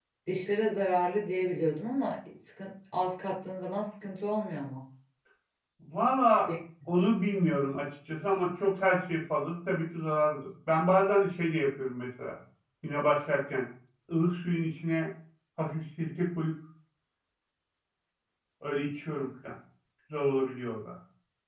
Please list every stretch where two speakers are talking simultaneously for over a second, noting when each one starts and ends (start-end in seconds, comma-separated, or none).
none